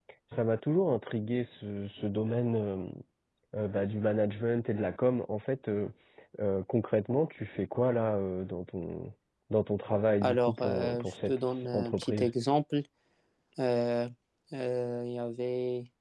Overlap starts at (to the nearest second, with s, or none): 10 s